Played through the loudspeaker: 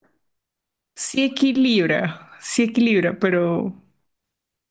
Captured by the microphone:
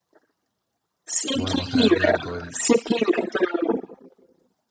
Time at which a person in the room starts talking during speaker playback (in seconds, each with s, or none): 1.3 s